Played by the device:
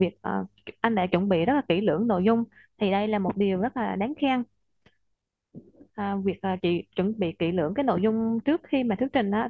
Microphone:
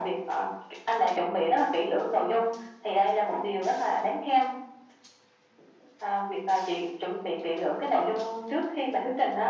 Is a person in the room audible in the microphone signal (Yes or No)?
No